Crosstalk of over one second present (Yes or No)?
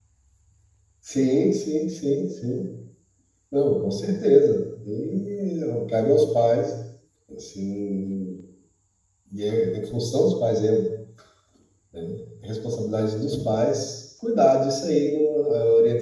No